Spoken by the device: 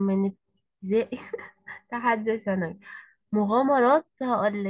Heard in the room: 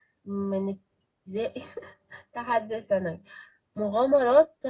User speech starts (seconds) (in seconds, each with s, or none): none